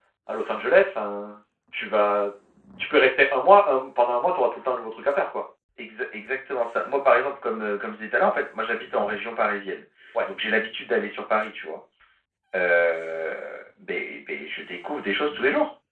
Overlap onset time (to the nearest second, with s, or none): none